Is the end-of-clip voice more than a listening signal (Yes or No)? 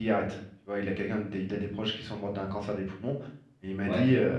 No